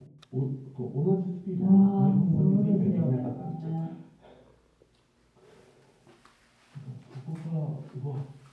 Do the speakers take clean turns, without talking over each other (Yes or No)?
No